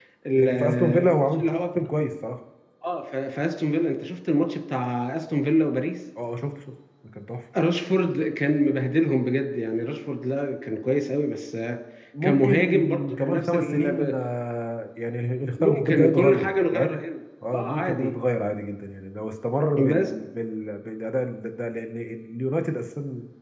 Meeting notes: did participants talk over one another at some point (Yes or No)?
Yes